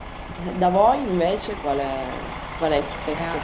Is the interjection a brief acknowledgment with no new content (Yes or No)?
Yes